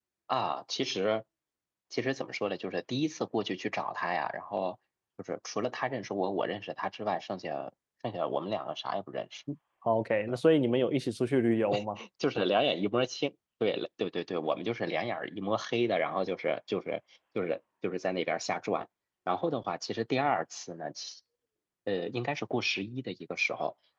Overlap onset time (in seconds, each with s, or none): none